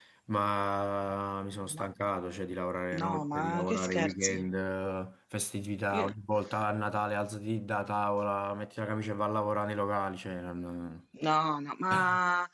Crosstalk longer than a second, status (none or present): present